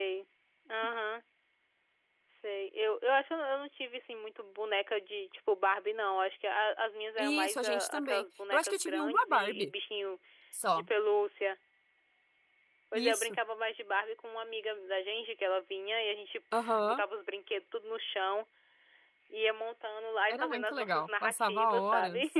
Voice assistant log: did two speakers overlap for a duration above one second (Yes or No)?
Yes